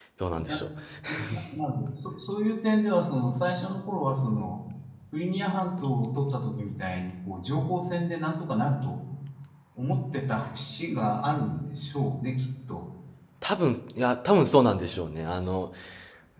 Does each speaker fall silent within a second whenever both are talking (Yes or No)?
Yes